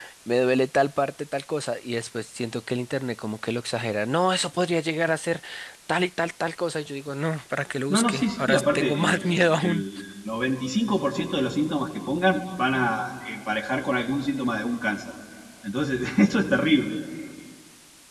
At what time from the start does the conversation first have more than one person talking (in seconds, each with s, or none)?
7.9 s